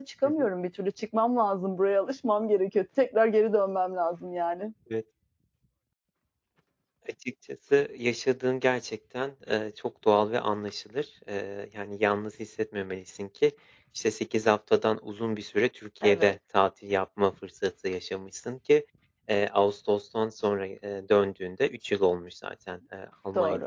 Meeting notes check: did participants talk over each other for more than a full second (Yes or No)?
No